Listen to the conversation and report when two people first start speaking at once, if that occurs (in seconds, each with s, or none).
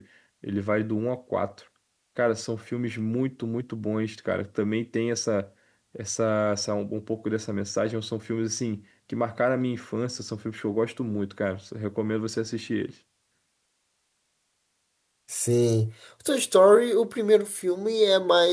none